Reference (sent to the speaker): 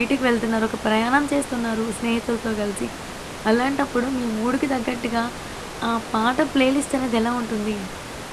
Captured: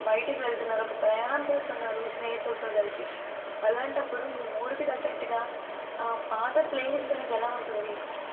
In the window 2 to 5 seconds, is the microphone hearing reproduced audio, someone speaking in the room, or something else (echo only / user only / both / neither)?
echo only